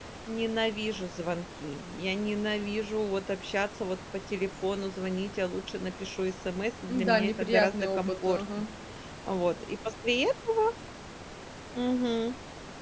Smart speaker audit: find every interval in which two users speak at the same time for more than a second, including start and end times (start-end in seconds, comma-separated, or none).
7.1-8.6